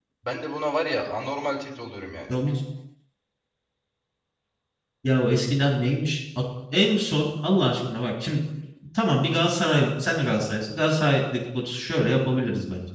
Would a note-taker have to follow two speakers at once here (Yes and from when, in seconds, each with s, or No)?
No